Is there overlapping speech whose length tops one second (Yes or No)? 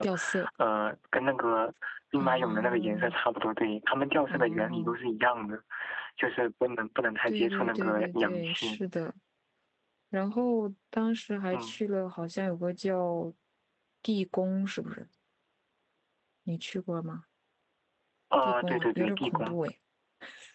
Yes